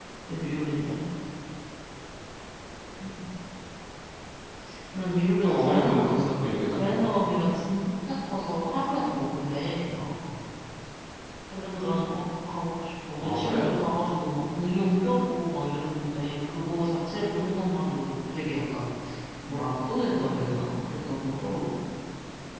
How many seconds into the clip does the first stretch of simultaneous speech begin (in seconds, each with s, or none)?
5.4 s